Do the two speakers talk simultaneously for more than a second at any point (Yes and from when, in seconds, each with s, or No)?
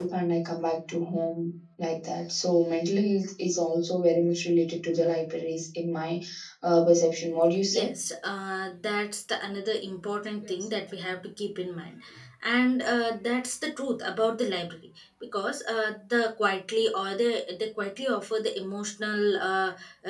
No